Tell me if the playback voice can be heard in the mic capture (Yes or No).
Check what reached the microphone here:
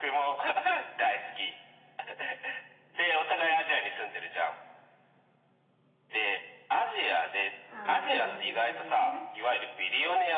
Yes